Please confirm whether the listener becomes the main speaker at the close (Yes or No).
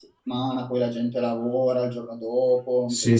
Yes